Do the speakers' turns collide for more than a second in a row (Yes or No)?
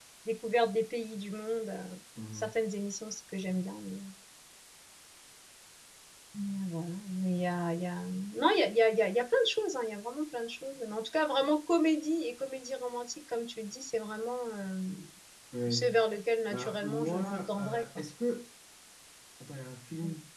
Yes